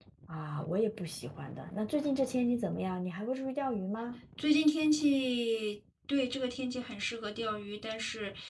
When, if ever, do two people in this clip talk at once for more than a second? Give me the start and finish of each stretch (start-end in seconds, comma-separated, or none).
none